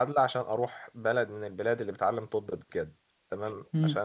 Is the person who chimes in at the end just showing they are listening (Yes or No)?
Yes